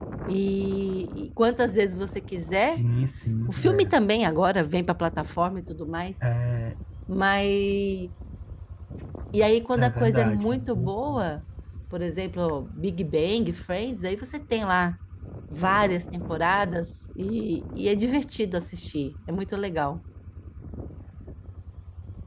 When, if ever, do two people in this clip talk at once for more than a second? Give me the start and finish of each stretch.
9.8-11.2

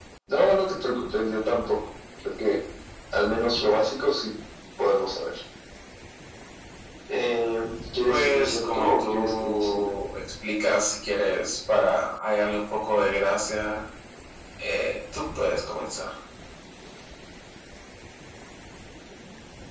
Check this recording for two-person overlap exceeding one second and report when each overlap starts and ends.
8.1-9.9

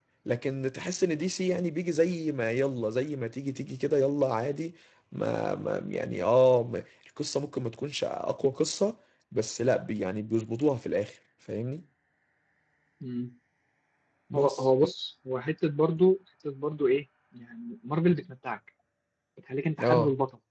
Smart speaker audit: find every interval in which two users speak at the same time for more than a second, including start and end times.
none

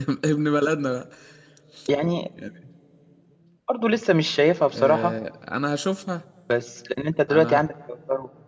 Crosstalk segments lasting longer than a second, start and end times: none

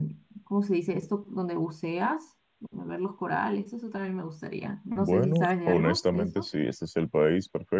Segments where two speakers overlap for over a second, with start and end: 5.0-6.5

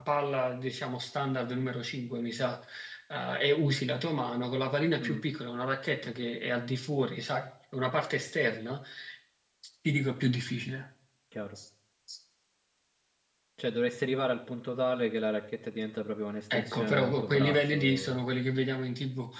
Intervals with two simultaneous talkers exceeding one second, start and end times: 16.5-18.2

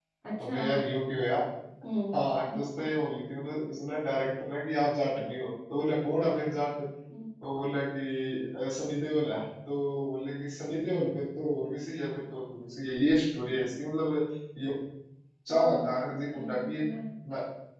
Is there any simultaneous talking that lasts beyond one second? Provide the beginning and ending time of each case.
15.5-16.8

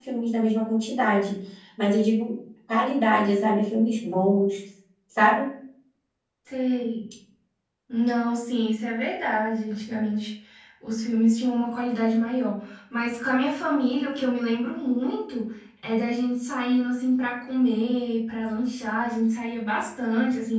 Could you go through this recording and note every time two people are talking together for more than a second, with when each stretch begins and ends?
none

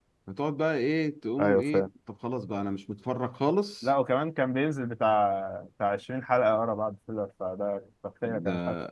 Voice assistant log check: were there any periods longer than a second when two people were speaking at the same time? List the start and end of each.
none

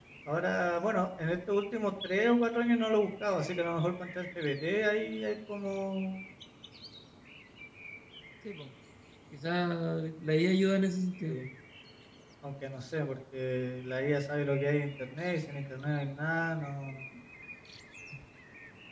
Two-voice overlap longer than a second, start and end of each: none

